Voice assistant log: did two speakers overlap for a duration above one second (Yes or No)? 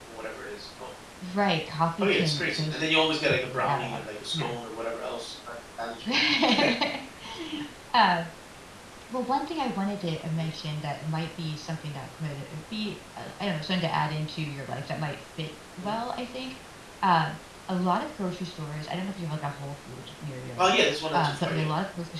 Yes